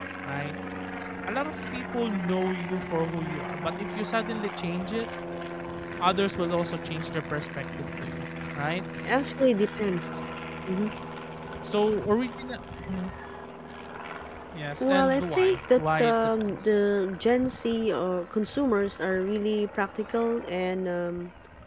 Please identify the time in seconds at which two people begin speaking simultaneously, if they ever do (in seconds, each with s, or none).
14.8 s